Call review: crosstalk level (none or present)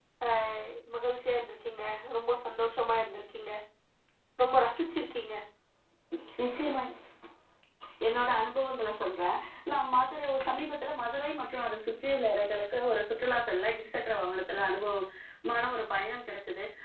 none